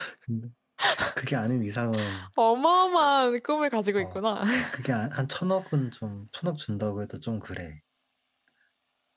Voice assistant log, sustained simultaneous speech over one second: none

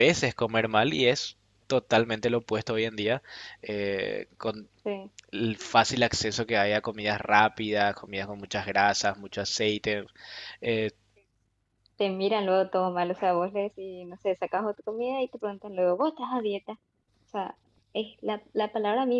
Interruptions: none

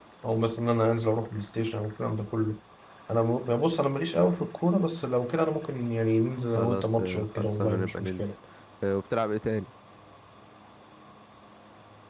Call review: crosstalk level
present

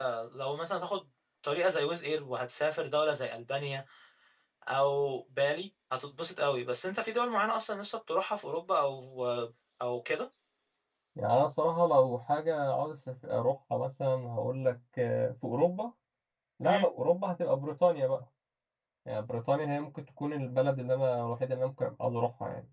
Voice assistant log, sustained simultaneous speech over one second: none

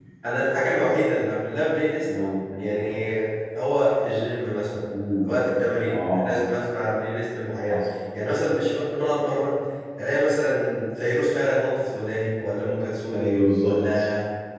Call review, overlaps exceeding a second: none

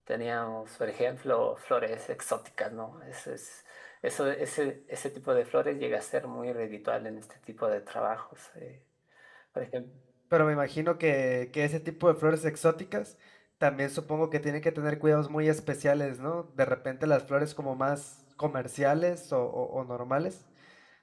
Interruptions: none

